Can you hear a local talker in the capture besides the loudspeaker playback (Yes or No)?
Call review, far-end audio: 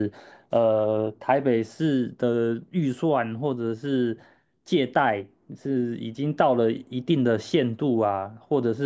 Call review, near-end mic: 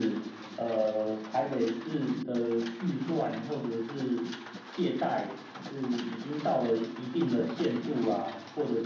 No